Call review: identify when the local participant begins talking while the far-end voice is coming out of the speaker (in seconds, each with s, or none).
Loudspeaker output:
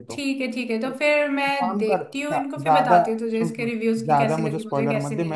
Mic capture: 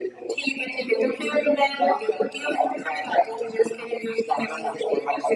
none